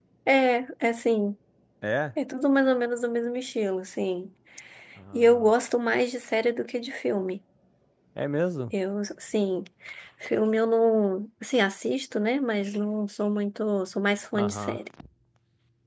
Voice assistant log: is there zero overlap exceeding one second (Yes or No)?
Yes